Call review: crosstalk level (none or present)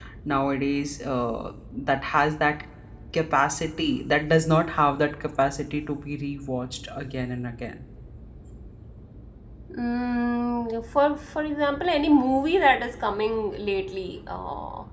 none